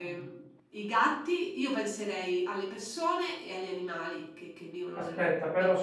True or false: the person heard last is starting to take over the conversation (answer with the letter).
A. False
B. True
B